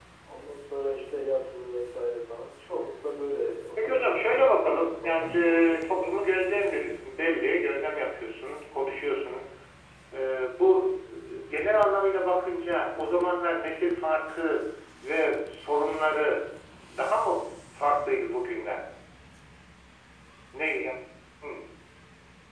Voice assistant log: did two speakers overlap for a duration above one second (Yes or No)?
Yes